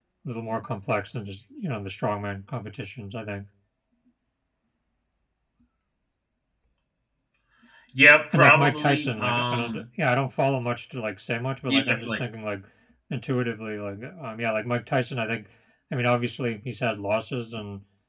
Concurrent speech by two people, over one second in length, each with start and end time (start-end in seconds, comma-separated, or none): 8.3-9.8